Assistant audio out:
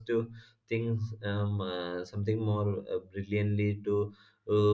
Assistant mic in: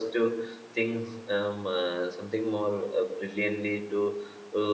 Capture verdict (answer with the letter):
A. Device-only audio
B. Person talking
A